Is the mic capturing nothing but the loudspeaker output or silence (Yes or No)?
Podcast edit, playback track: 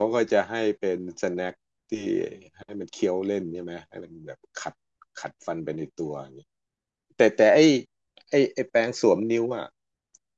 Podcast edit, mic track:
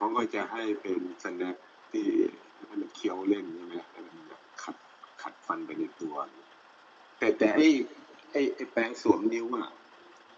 Yes